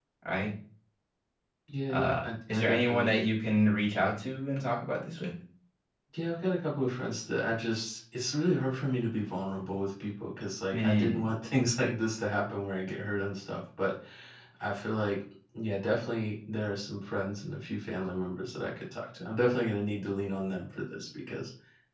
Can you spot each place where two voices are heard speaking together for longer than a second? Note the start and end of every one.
1.9-3.2

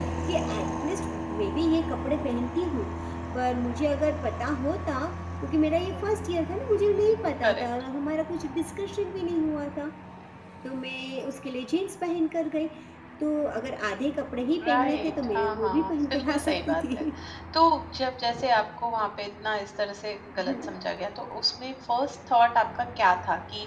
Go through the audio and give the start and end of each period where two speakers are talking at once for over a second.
14.7-17.0

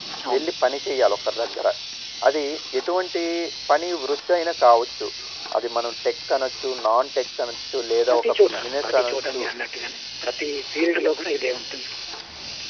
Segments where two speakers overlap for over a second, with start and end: 8.1-9.4

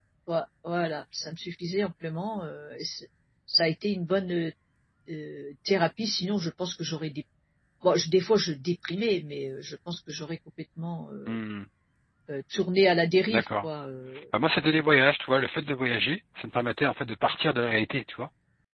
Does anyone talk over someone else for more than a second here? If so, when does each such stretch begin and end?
none

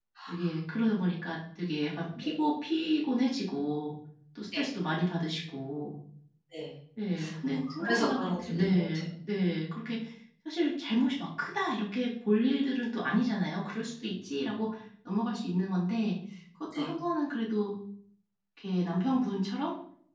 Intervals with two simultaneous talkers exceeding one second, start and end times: 7.4-8.8

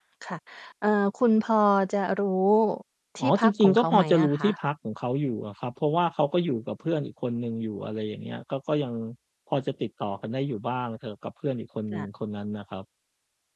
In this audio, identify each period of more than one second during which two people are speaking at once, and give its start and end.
3.2-4.5

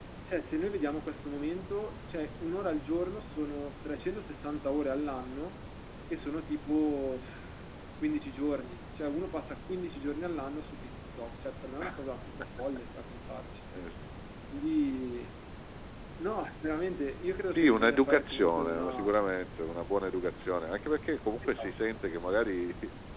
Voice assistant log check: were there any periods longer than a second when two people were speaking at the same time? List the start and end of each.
17.5-19.1

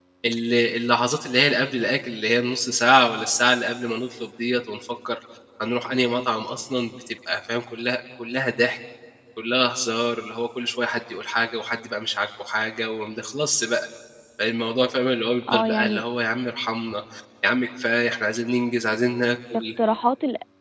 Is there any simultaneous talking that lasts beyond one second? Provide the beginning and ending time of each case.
none

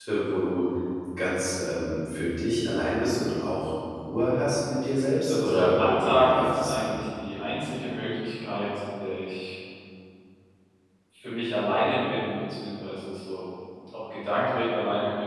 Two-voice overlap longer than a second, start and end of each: 5.3-6.8

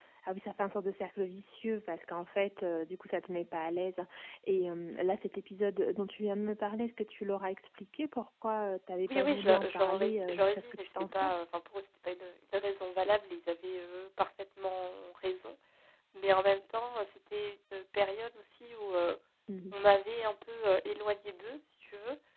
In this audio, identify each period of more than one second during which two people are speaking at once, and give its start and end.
9.1-11.4

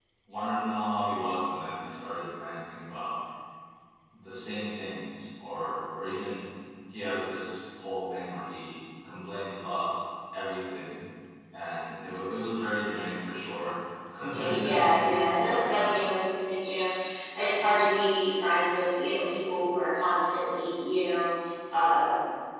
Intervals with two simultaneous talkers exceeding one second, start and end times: 14.3-15.9

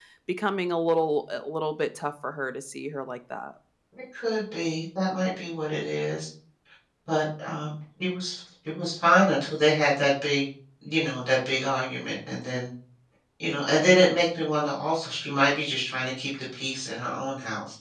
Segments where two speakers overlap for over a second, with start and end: none

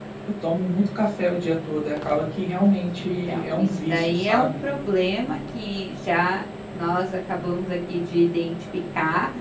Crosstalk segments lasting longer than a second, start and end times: 3.0-4.5

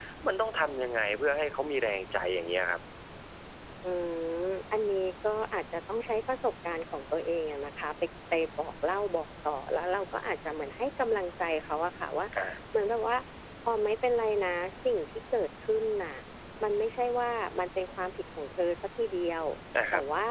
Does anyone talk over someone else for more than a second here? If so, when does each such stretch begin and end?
none

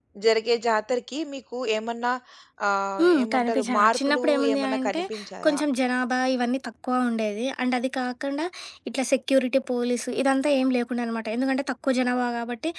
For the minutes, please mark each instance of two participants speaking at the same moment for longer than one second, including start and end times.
3.0-5.0

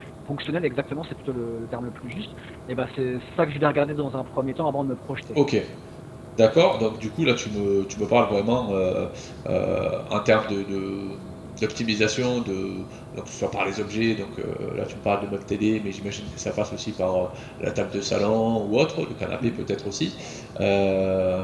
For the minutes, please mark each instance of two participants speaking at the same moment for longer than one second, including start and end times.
none

